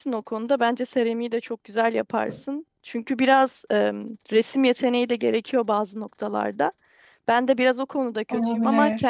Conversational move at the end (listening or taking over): listening